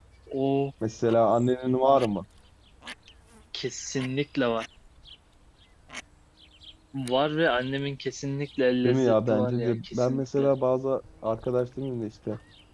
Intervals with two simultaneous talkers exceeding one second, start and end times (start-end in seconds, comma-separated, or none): 8.8-10.5